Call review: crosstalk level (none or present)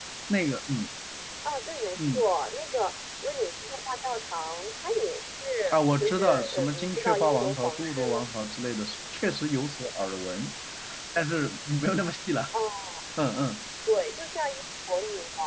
present